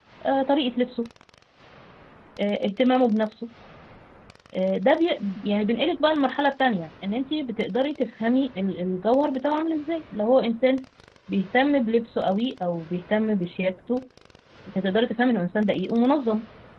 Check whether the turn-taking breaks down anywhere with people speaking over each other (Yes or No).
No